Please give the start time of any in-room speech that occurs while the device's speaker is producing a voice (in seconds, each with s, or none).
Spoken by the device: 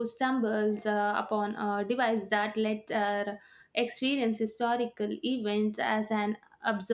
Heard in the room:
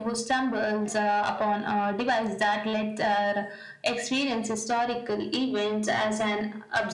none